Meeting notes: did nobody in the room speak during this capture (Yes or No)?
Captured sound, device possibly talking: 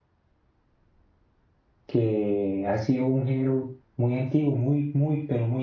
No